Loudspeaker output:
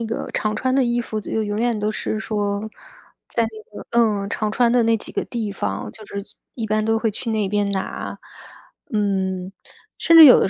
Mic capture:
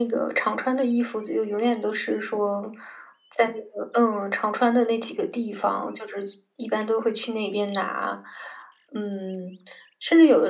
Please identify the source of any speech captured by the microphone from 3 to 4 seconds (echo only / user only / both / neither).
echo only